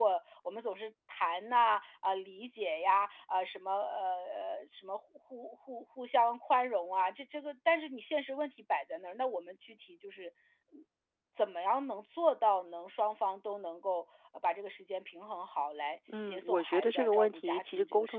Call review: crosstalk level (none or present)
present